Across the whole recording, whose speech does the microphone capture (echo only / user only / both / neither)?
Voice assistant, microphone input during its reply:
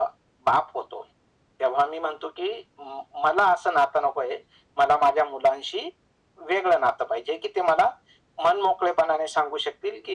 echo only